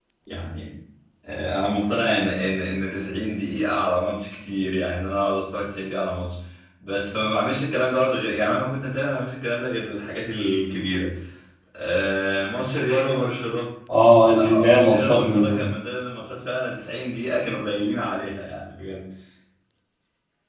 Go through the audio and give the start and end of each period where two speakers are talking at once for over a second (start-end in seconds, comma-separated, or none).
14.4-15.6